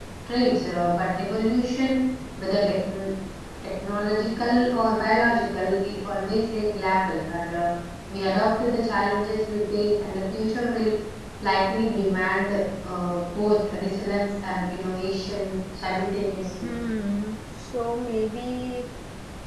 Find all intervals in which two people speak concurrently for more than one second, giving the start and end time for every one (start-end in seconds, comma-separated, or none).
none